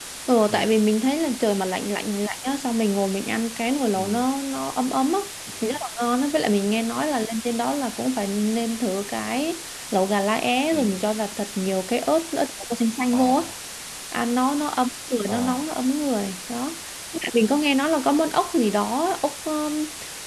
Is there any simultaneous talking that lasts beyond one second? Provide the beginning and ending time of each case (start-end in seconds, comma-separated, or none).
none